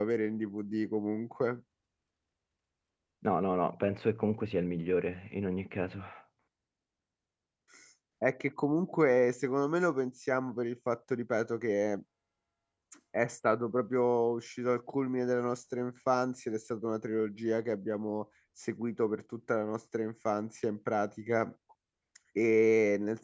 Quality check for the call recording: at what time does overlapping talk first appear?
none

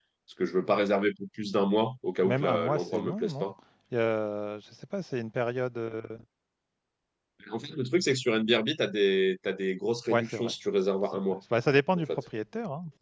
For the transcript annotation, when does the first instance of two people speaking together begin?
2.2 s

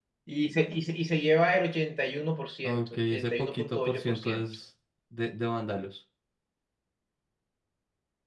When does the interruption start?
2.6 s

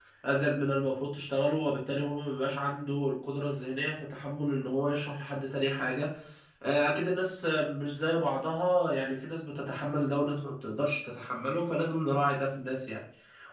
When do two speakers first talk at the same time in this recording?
none

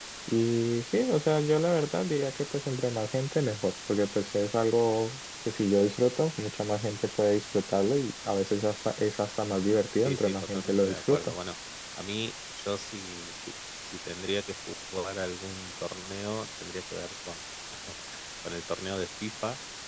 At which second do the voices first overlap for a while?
10.0 s

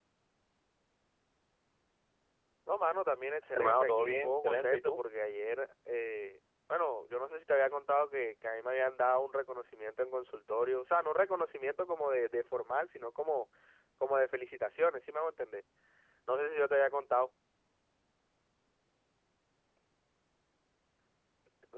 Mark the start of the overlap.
3.5 s

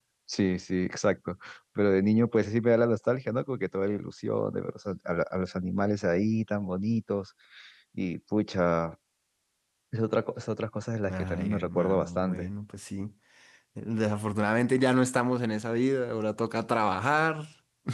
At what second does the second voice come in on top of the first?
11.0 s

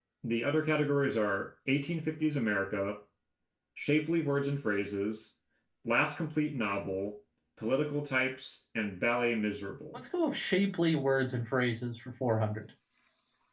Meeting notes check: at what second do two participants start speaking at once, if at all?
none

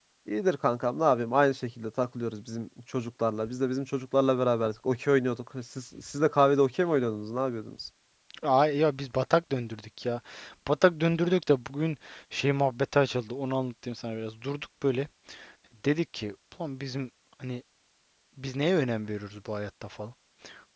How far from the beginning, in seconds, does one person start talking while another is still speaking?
none

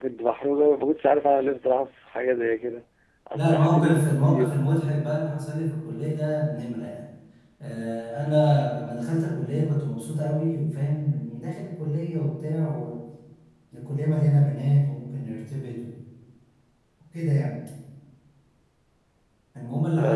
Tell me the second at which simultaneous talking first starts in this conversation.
3.3 s

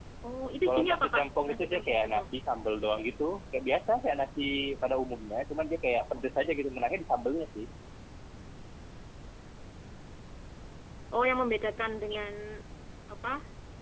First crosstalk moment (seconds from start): 0.7 s

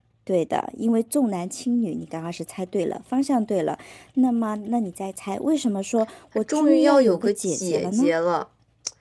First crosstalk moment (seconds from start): 6.5 s

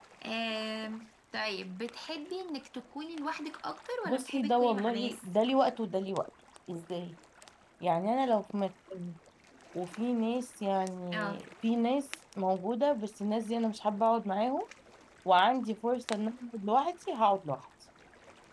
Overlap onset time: 4.0 s

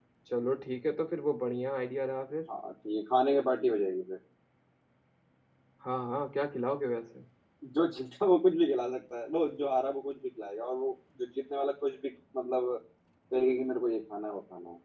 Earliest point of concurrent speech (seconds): none

